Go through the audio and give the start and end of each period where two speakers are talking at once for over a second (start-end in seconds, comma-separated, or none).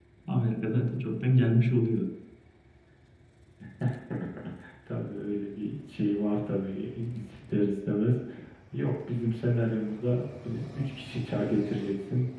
none